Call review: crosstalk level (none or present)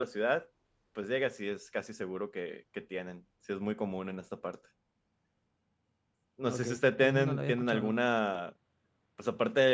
present